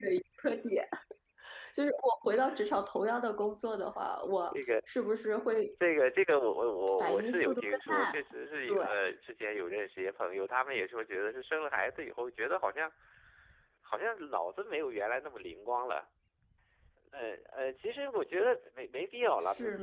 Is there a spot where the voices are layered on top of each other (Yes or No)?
Yes